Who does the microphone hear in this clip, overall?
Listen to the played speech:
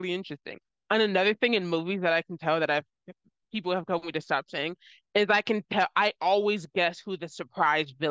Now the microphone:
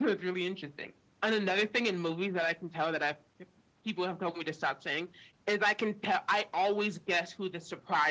echo only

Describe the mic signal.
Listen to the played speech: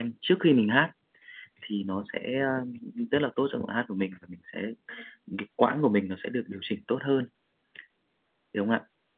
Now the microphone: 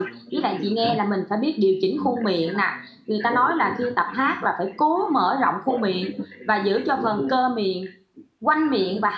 both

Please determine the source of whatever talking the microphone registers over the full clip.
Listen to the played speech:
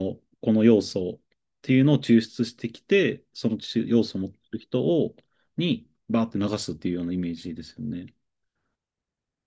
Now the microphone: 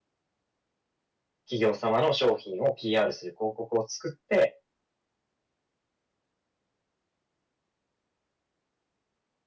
user only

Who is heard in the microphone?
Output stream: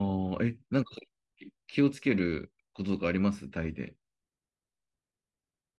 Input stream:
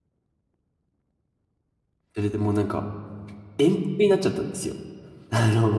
user only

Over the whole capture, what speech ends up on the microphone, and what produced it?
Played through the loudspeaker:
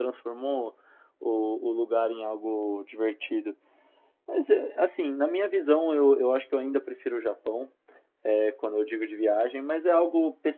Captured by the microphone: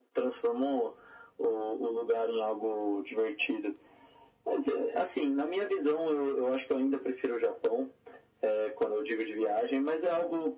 echo only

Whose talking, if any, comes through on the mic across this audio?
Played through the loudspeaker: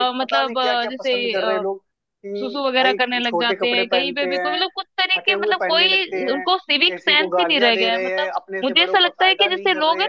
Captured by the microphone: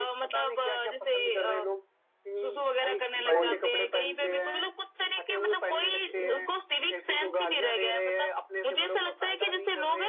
both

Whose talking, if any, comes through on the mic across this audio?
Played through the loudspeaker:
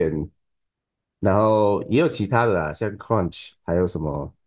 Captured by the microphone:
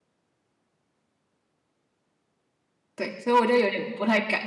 user only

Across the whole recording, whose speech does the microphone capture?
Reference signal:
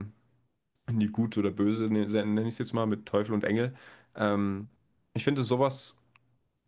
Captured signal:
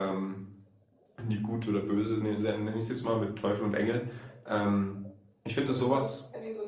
both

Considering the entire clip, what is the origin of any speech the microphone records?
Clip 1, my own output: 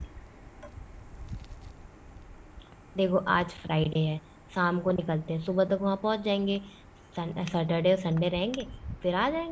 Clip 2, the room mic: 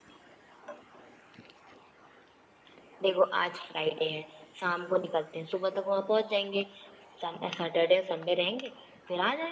echo only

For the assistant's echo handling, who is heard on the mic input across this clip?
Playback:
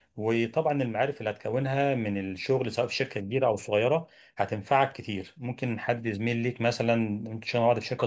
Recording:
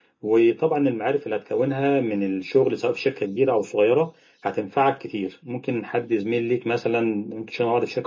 echo only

